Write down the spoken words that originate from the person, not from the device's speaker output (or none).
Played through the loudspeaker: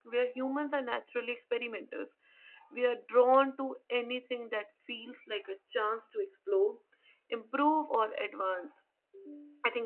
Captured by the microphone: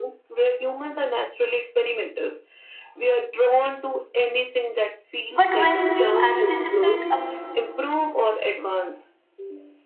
but when we anticipate a